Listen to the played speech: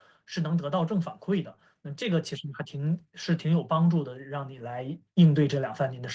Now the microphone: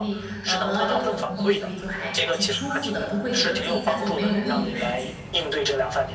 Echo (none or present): present